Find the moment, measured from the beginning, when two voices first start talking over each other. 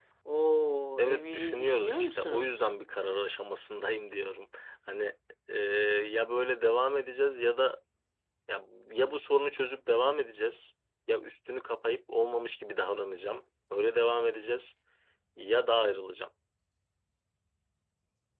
1.0 s

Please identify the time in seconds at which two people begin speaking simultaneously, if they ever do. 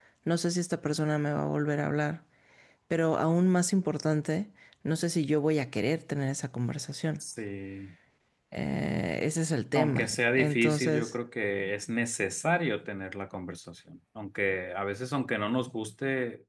9.7 s

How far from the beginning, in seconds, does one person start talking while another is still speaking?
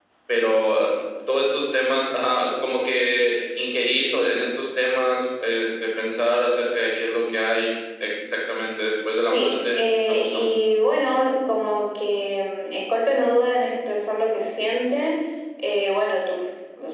9.1 s

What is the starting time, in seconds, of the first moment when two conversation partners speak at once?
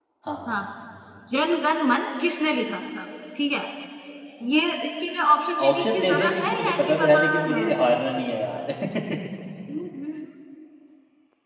5.6 s

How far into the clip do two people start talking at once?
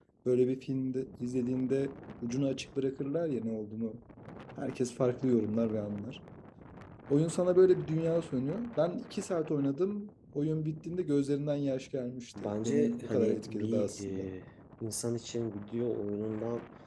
12.4 s

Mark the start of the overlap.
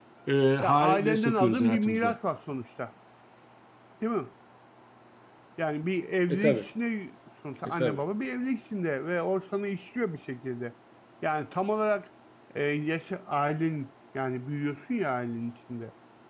0.6 s

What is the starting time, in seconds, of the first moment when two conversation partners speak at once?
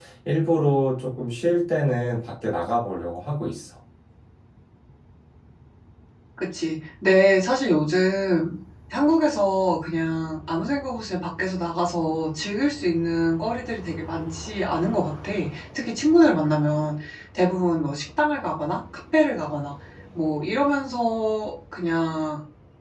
none

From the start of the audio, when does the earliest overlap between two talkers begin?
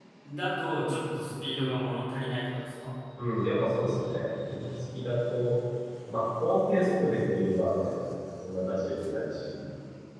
none

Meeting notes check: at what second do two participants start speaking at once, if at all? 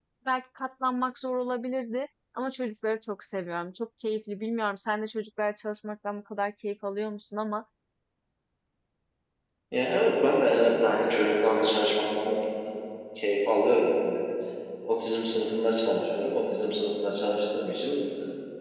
none

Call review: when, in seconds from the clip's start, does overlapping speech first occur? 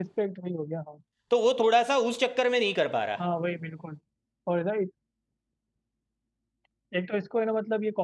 none

